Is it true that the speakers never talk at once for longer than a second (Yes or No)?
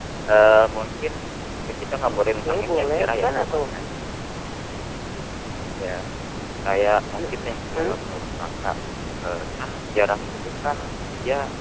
No